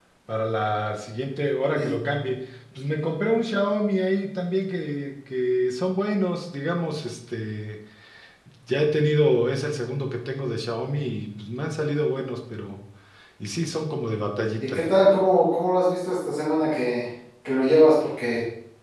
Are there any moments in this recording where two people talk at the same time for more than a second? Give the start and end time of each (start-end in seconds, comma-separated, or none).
none